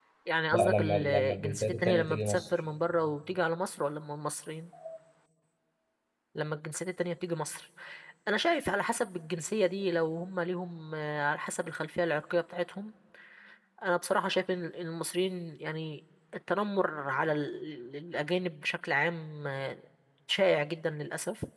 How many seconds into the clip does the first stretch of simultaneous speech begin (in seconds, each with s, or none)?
0.5 s